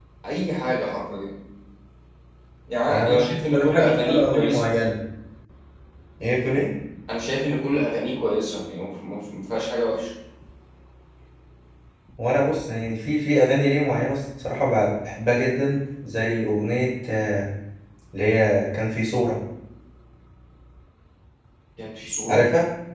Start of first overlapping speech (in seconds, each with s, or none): 2.9 s